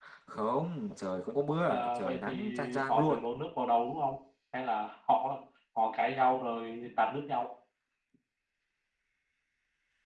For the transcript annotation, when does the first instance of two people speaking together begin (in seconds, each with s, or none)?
1.7 s